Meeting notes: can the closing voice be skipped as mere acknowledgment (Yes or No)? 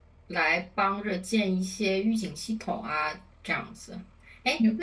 Yes